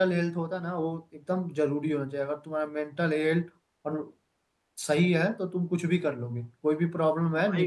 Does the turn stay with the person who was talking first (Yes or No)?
Yes